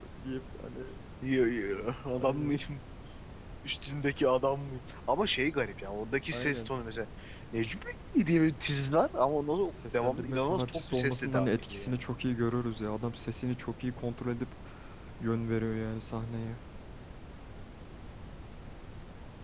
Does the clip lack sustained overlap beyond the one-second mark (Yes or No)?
No